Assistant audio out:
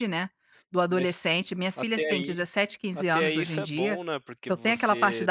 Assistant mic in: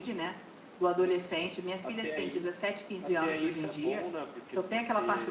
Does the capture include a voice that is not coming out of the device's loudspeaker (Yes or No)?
No